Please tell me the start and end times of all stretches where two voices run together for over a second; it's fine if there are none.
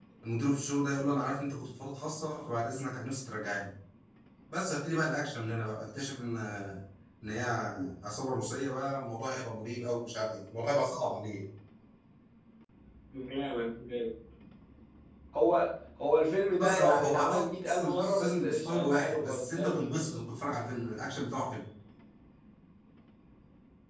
16.6-20.2

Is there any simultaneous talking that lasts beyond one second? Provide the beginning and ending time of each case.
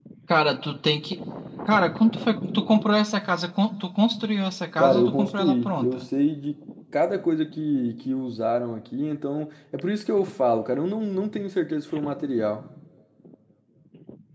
4.8-6.1

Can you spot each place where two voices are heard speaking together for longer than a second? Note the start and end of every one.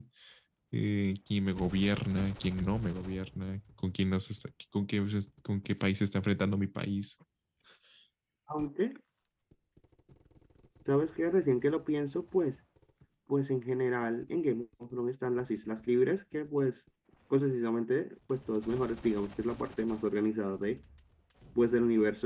none

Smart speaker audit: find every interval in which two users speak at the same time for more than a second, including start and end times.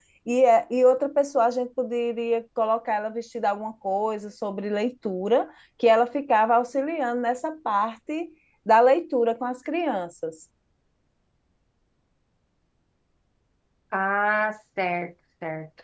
none

